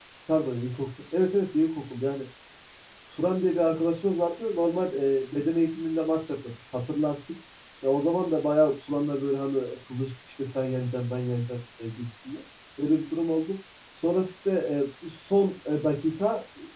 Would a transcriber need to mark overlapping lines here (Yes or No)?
No